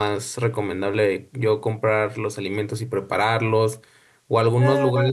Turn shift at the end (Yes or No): No